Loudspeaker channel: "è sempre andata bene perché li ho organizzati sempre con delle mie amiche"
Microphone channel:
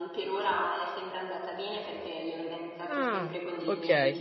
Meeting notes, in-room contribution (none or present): present